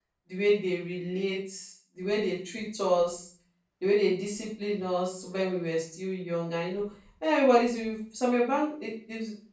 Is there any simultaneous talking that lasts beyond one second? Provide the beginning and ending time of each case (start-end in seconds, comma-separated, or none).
none